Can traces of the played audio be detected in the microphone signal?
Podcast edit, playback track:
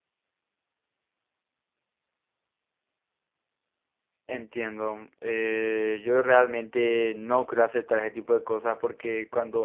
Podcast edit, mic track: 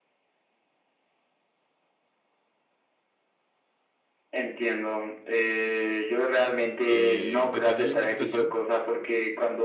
Yes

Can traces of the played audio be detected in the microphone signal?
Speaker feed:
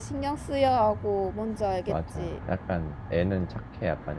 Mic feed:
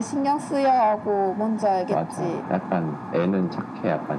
Yes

